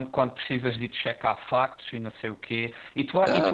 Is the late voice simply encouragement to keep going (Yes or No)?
Yes